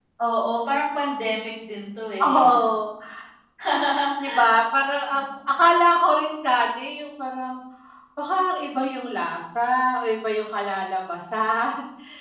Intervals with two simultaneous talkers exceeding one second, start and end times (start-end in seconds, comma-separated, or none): none